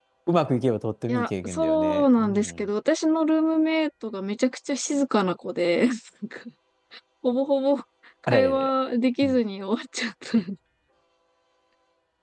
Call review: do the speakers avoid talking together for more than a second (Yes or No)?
No